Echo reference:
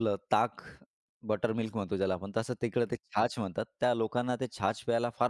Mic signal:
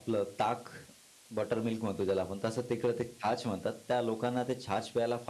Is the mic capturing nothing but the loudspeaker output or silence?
Yes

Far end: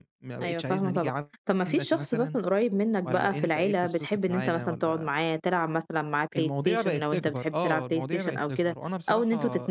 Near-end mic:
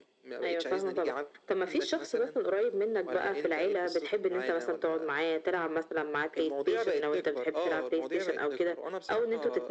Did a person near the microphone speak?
No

